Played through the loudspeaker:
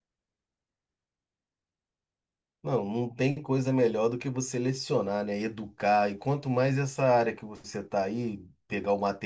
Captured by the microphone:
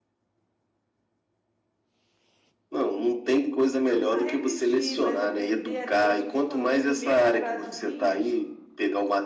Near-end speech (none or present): present